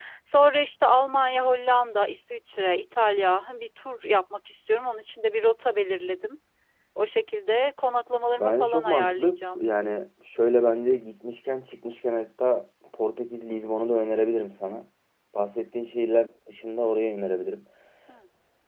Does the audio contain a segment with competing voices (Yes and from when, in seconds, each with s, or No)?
Yes, from 8.4 s